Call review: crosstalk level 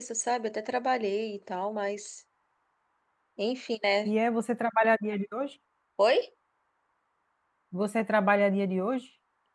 none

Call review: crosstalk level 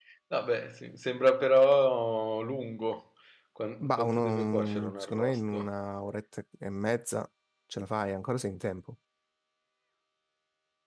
present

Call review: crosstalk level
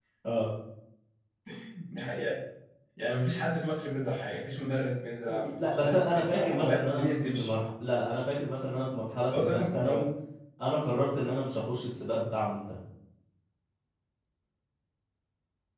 present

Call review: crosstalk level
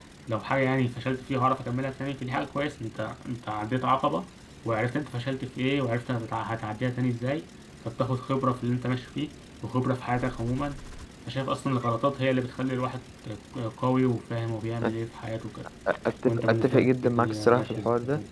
present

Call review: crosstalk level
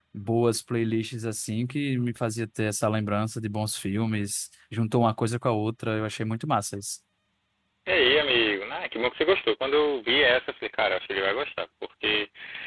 none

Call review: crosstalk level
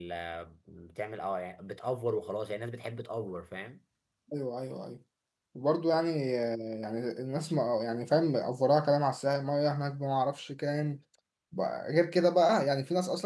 none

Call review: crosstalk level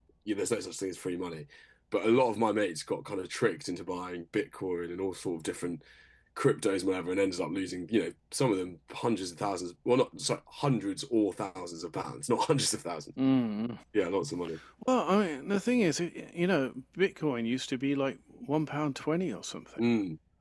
none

